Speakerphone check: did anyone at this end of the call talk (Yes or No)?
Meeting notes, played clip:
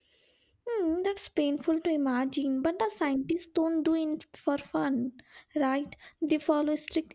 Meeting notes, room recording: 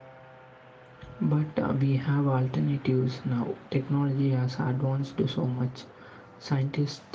Yes